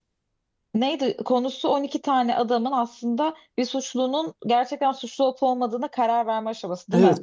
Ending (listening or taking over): taking over